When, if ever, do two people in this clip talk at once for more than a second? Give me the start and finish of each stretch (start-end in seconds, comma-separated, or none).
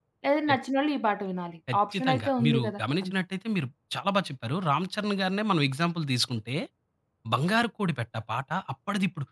1.7-3.1